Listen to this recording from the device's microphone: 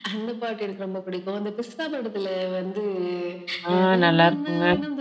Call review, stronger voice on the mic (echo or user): user